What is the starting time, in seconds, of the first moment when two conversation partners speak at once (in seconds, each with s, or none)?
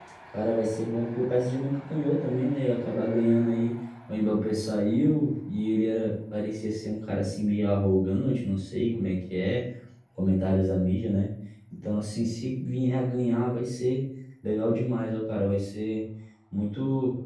none